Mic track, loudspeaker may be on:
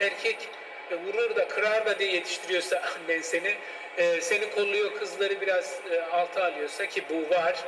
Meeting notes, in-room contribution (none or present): none